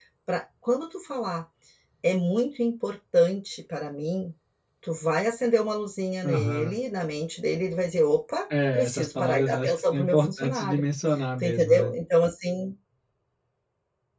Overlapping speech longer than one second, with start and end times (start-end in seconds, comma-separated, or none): 8.7-10.8